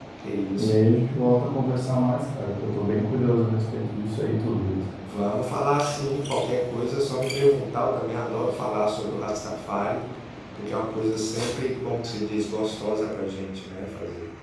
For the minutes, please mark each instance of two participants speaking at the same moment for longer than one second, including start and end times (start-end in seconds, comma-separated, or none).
none